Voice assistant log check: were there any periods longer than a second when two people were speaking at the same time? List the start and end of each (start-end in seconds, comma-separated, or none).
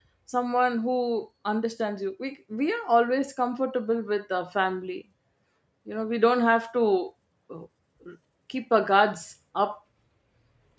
none